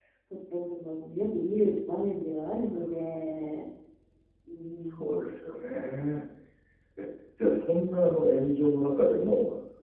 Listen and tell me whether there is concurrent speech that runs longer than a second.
No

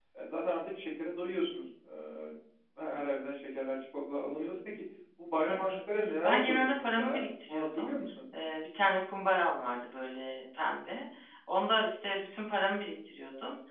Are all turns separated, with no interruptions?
No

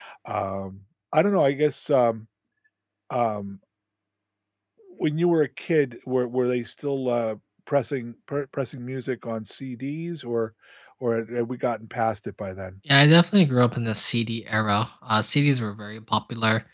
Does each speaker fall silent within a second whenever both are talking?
Yes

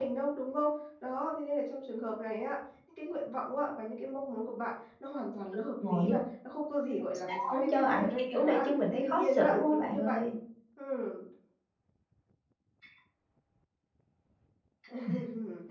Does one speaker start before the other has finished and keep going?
Yes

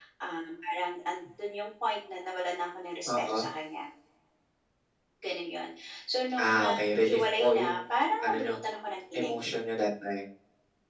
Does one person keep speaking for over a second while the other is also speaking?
Yes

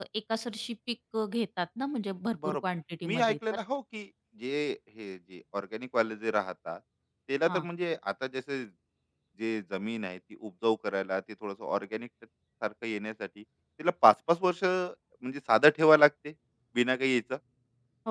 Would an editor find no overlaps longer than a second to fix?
Yes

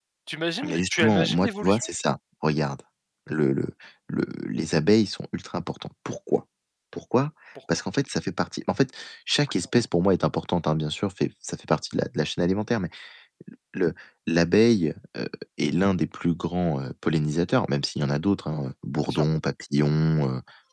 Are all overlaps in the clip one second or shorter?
No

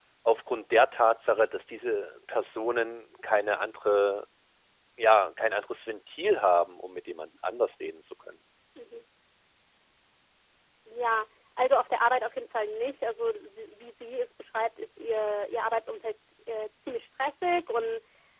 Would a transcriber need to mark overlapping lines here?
No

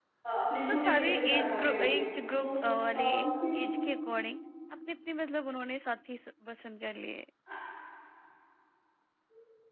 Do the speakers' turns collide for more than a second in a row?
Yes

